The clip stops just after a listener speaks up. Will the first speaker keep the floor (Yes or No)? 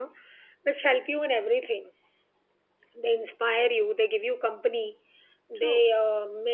Yes